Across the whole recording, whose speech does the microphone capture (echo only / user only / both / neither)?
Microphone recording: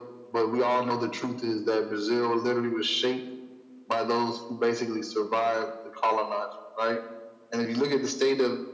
echo only